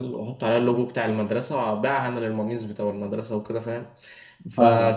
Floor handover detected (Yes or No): No